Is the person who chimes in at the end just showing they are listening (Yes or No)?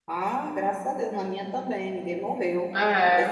Yes